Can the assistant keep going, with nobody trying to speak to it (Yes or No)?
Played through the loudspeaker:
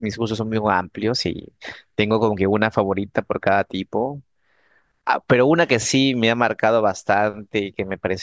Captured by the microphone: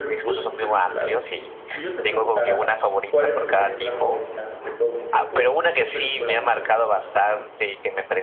No